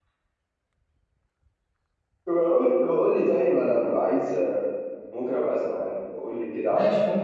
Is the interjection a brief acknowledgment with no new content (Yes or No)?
No